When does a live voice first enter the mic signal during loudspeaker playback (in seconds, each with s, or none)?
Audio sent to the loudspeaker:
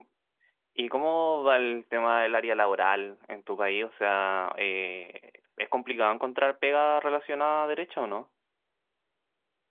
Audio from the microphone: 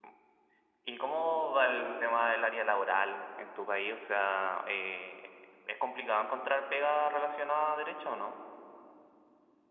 none